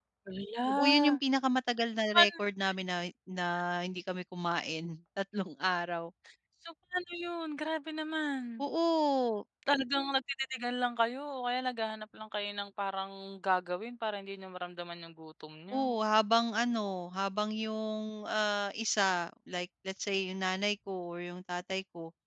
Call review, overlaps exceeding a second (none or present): none